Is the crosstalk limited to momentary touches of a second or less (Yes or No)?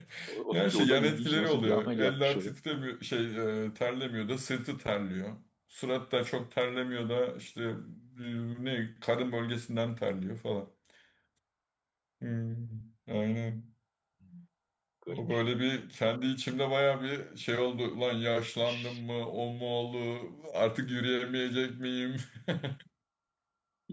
No